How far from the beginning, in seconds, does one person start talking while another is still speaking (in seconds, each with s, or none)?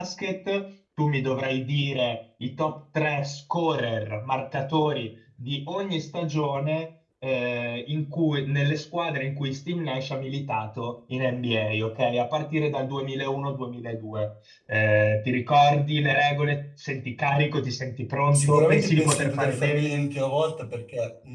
18.3 s